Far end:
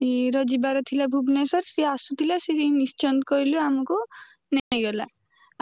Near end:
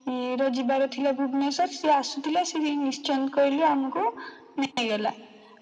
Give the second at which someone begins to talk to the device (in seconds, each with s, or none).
none